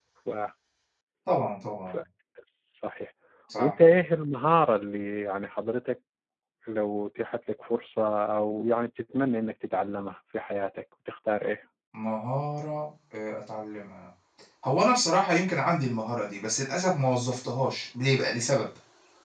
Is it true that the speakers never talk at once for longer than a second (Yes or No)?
Yes